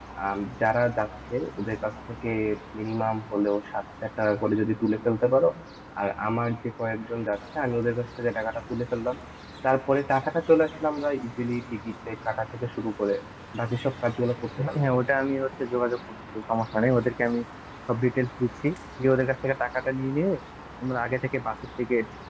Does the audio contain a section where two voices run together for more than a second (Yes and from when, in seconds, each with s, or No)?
No